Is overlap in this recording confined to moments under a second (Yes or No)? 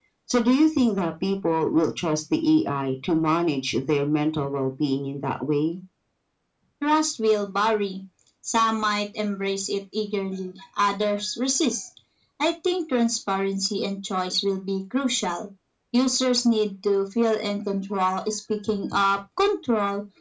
Yes